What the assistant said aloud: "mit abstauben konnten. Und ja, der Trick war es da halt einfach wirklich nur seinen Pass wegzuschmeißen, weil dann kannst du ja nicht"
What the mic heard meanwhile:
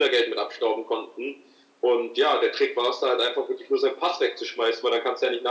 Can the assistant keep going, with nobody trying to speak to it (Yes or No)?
Yes